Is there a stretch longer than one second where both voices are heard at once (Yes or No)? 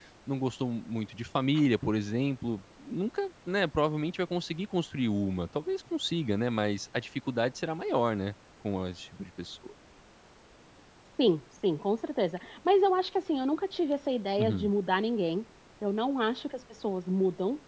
No